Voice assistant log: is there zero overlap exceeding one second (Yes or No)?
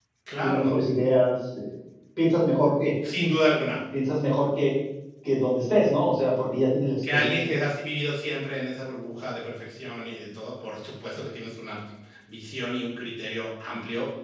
Yes